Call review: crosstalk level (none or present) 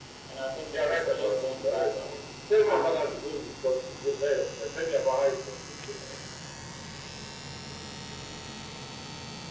present